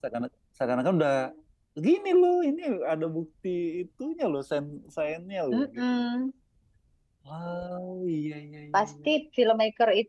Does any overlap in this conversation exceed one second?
No

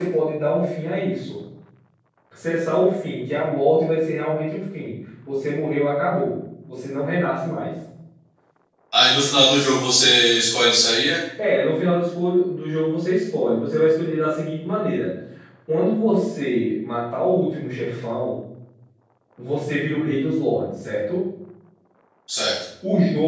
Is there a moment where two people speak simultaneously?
No

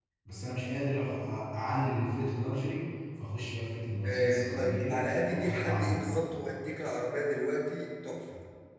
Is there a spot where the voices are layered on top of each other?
Yes, from 4.0 s

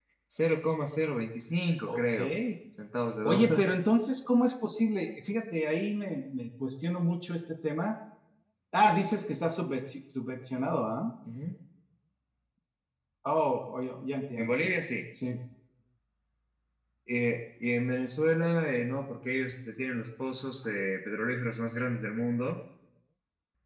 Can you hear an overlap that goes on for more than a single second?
No

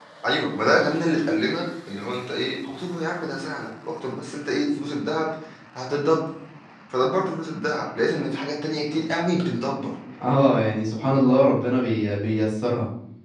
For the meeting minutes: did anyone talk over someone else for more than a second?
No

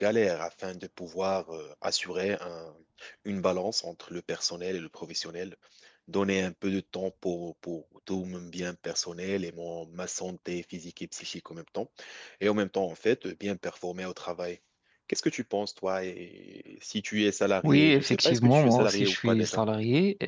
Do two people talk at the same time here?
Yes, from 17.6 s

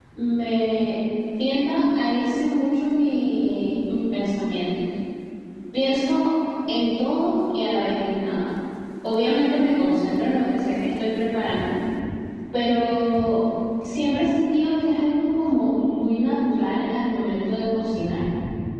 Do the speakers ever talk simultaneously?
No

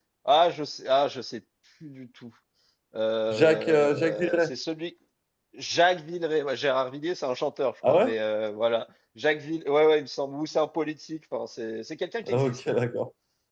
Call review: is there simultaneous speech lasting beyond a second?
Yes, from 3.3 s

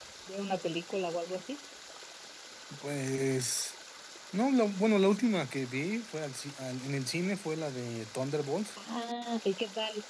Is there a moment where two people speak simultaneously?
No

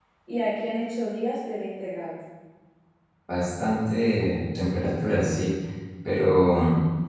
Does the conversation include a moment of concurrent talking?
No

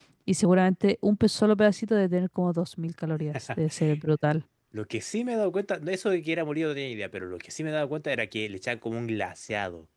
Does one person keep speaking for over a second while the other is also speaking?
No

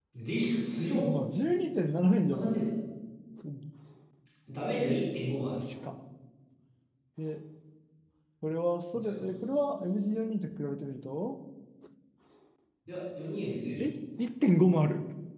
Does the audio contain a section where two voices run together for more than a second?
No

